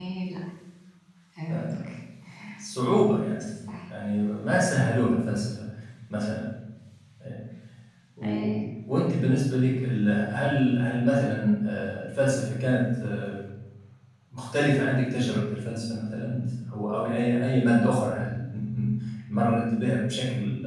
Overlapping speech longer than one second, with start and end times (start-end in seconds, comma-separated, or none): none